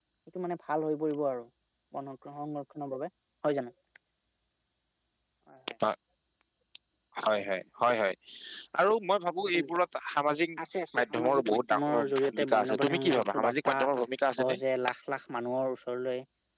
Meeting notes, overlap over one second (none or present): present